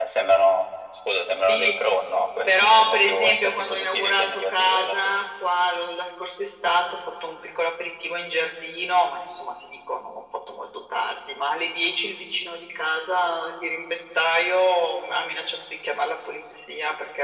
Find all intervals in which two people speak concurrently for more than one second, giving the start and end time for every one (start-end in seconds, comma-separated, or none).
2.5-5.2